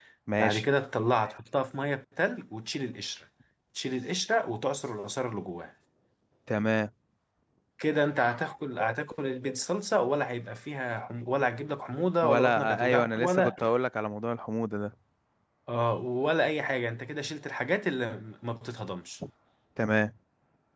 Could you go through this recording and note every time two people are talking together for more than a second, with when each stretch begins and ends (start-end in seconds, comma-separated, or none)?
12.2-13.5